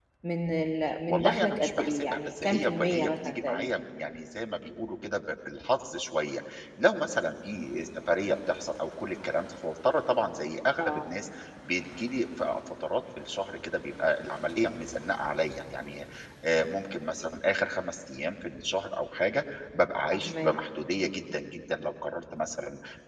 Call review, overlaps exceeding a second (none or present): present